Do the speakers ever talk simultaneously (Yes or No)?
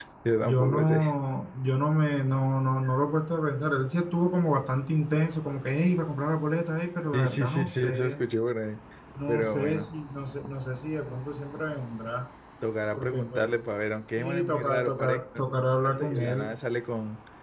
Yes